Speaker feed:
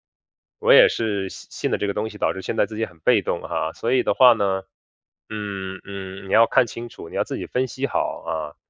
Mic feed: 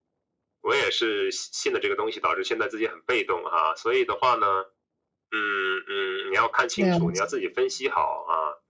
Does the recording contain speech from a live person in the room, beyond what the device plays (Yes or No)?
Yes